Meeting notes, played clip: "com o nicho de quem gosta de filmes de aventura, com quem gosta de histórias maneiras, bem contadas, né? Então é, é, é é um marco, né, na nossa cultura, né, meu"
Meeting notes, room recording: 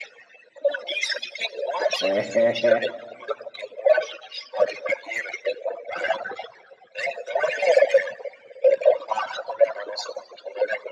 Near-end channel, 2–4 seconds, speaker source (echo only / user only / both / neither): both